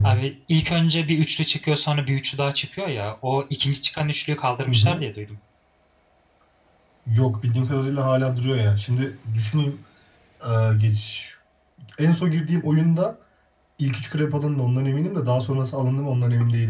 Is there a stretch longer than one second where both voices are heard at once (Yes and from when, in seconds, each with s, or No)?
No